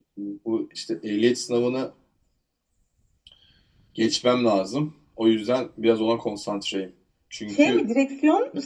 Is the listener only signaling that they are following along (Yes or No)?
No